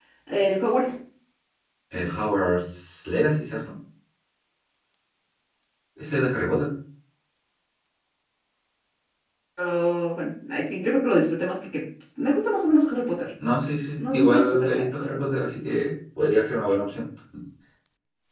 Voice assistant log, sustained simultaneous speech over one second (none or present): present